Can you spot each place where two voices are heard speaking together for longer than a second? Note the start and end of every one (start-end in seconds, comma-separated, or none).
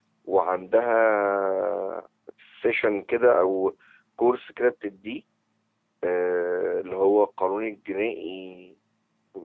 none